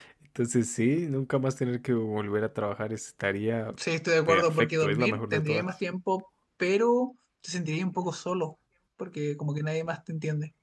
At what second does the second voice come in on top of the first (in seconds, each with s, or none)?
4.3 s